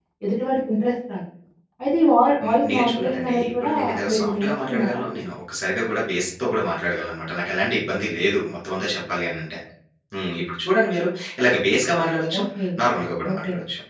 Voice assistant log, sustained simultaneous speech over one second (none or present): present